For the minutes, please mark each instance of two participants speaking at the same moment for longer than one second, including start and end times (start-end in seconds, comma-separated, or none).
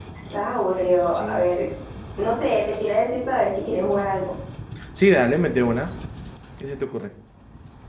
none